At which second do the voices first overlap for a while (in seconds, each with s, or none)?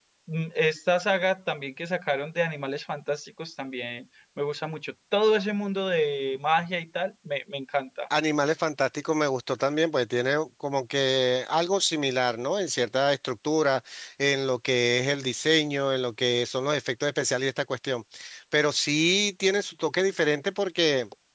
none